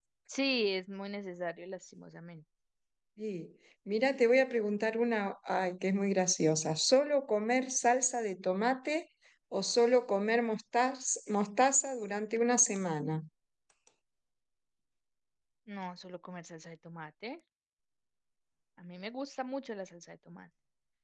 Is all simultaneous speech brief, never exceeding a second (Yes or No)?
Yes